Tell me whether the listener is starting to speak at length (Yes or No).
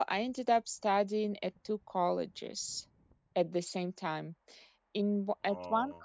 No